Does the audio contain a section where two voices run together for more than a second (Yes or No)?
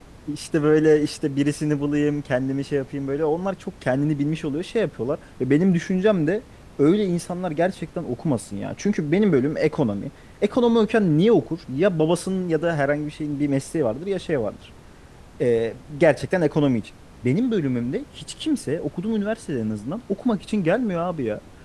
No